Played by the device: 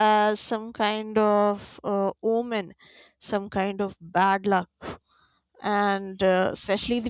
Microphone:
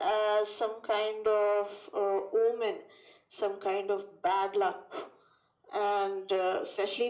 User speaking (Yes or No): No